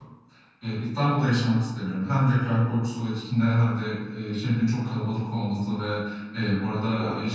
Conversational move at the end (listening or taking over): listening